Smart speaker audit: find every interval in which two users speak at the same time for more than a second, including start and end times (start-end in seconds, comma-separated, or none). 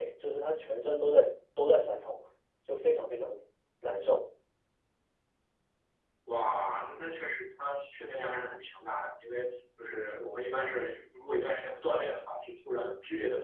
none